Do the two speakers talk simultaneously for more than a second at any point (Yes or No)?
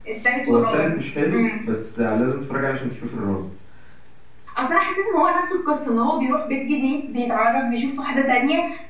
No